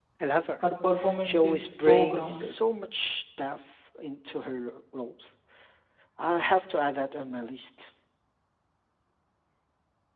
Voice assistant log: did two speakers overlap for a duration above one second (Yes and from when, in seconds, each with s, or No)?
Yes, from 1.2 s